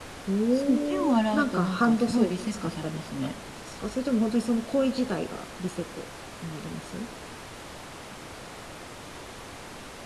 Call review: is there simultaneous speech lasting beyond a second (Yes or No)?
Yes